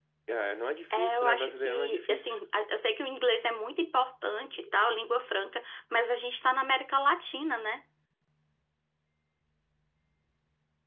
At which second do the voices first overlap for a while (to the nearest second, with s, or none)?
1 s